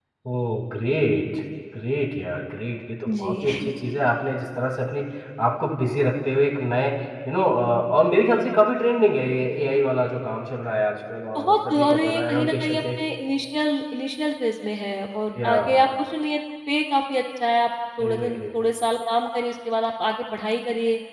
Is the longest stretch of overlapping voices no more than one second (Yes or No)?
No